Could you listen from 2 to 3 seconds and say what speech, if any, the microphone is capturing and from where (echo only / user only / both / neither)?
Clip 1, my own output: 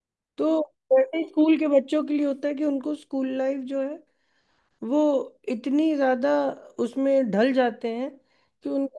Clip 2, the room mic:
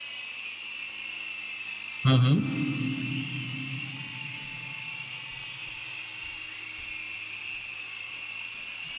user only